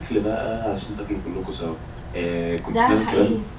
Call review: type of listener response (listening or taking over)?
listening